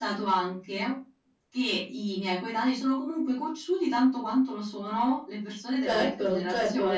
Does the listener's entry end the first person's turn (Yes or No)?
Yes